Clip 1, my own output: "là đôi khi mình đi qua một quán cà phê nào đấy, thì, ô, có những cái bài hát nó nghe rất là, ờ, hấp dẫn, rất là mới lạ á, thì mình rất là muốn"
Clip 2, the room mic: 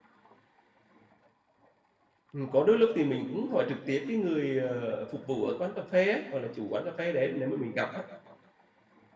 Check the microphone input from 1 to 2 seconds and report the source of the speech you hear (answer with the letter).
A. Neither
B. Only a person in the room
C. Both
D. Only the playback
A